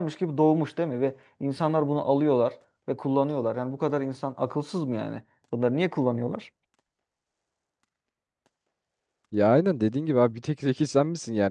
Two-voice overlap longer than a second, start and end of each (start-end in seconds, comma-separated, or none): none